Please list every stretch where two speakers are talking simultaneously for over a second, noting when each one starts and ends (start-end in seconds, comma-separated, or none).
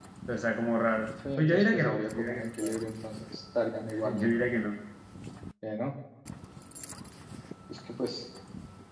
1.4-2.7